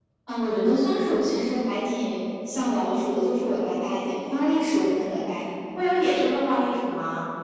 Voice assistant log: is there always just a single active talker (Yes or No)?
Yes